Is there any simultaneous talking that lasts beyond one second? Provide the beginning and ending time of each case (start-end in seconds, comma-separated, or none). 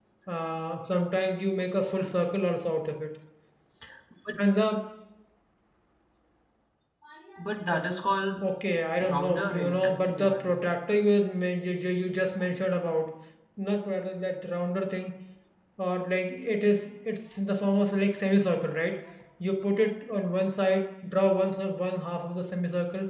9.0-10.7